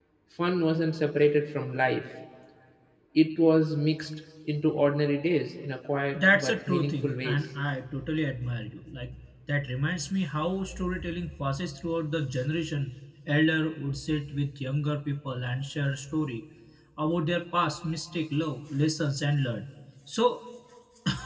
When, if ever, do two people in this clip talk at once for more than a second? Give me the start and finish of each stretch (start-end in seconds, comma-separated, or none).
6.1-7.5